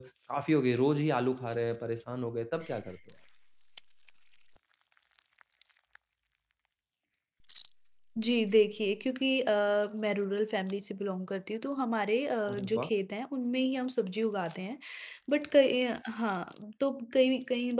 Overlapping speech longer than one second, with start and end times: none

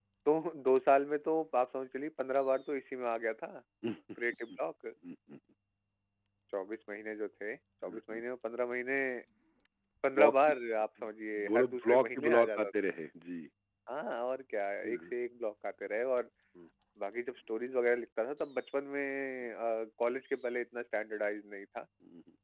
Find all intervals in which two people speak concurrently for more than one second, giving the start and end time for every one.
11.5-12.7

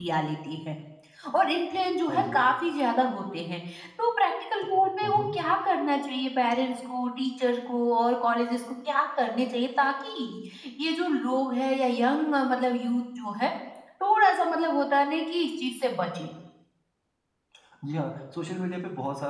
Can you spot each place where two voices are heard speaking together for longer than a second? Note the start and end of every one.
none

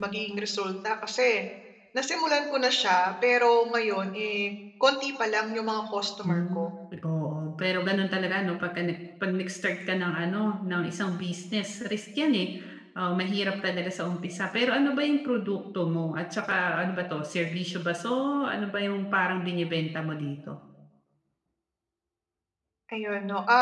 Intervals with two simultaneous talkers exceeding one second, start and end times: none

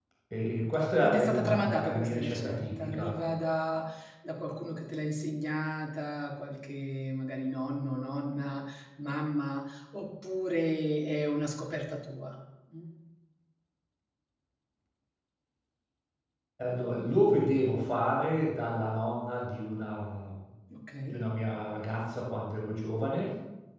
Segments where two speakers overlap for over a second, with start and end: 1.0-3.2

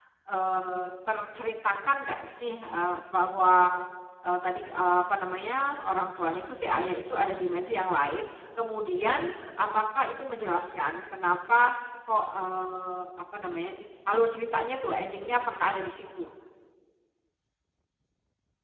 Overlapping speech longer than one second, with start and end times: none

